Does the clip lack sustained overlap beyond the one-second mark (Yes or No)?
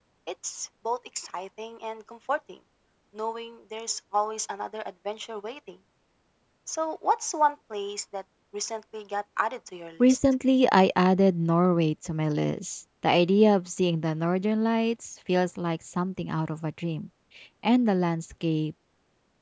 Yes